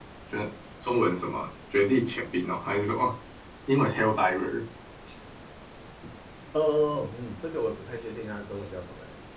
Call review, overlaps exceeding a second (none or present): none